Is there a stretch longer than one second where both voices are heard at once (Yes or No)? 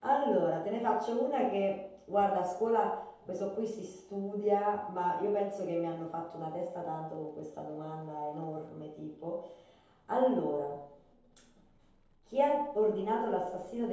No